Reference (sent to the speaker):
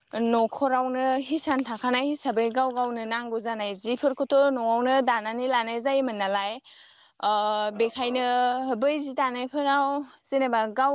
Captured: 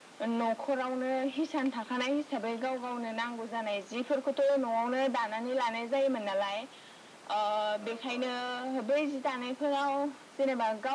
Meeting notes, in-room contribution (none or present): none